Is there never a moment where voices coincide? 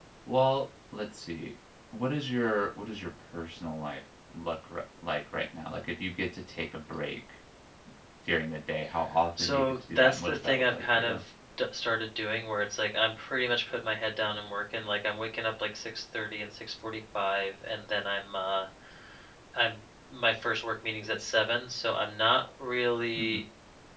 No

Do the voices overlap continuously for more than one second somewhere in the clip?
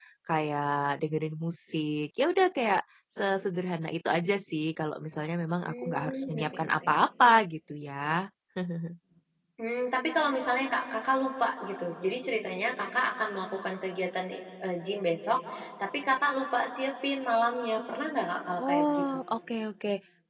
Yes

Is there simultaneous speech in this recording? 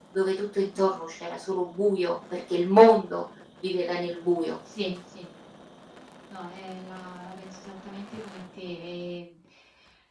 No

